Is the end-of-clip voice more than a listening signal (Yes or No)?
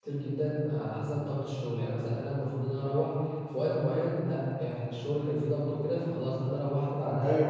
Yes